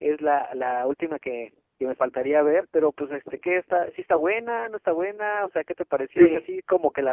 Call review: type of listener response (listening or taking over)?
listening